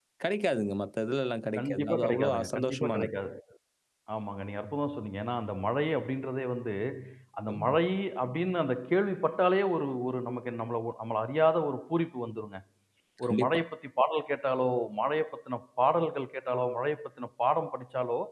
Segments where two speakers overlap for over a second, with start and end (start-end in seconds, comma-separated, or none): 1.6-3.1